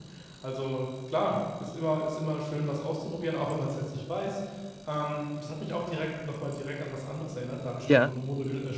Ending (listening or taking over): listening